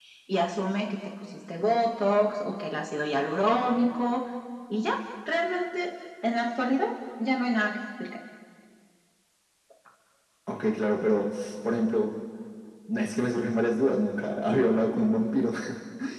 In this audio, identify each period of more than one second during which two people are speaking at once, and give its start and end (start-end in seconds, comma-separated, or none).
none